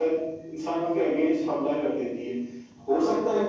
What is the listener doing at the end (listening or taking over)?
listening